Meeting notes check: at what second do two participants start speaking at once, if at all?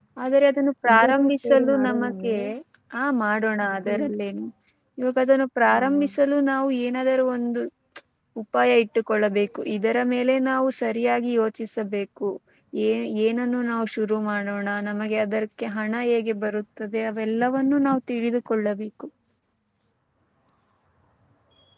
1 s

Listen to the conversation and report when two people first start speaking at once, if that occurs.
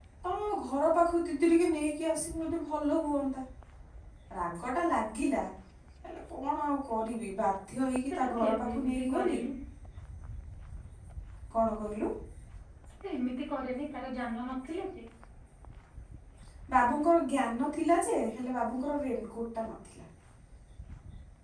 8 s

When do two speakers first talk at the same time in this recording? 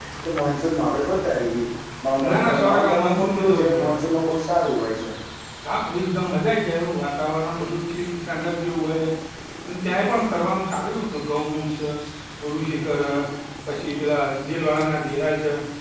2 s

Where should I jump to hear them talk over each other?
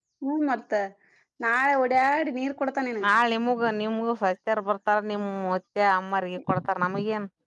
none

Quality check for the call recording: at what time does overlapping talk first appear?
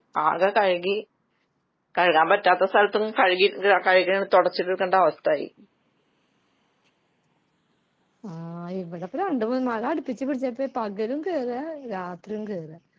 none

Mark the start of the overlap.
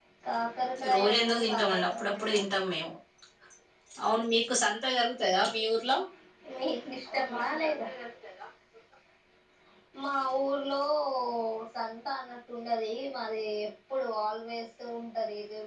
1 s

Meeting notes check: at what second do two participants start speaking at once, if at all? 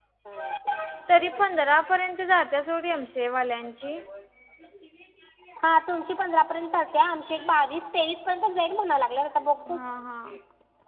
none

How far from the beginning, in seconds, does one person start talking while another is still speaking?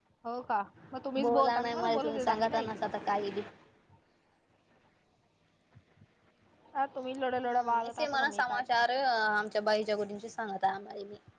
1 s

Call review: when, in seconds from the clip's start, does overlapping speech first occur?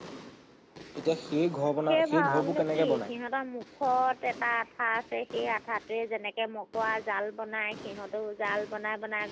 2 s

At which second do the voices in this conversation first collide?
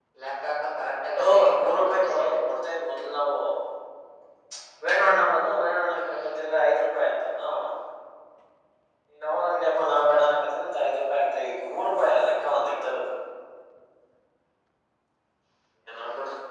1 s

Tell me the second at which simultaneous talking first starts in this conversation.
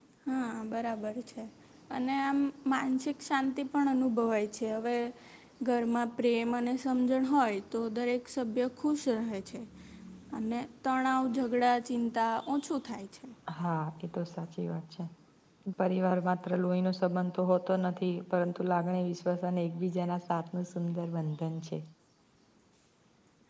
none

